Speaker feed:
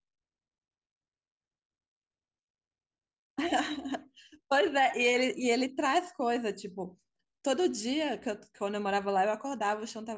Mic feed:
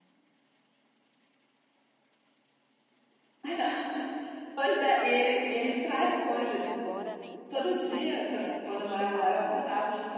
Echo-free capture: No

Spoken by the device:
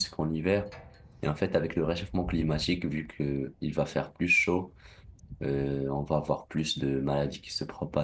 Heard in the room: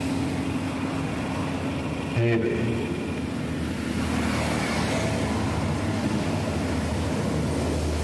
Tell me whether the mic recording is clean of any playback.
Yes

